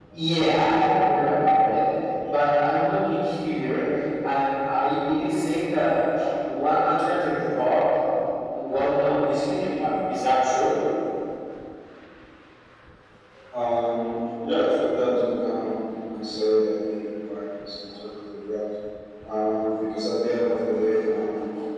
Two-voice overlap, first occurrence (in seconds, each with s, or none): none